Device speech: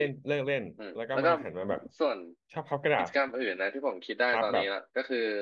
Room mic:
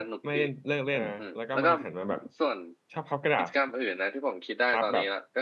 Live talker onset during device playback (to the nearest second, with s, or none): 1 s